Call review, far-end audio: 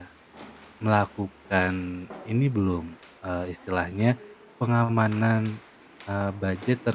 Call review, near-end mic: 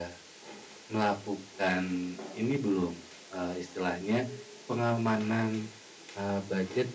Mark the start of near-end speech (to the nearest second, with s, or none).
none